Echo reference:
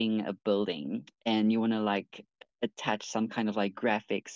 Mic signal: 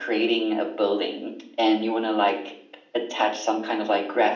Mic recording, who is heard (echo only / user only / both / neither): echo only